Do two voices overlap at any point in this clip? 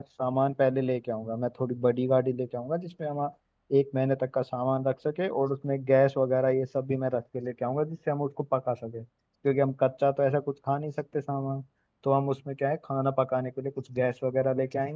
No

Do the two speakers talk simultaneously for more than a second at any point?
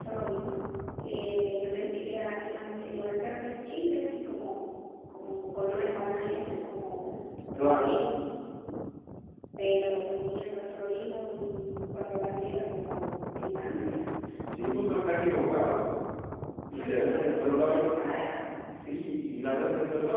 Yes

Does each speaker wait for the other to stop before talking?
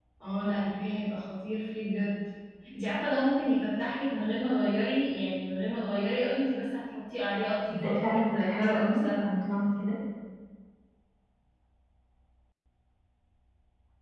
No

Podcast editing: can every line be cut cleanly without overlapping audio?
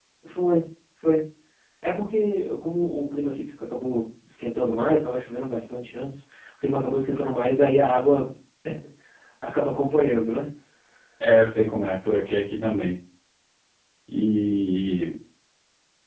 Yes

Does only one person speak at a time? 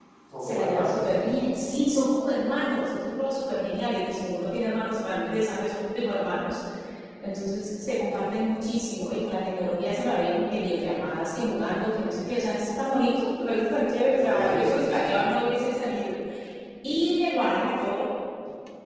No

